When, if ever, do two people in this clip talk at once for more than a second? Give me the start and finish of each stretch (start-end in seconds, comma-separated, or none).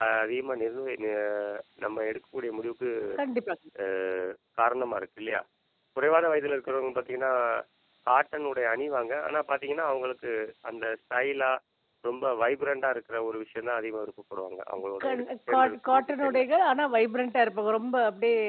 15.0-16.4